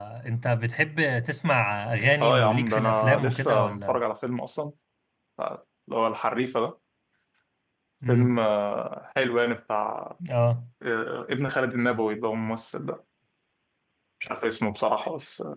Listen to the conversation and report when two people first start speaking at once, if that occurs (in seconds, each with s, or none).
2.2 s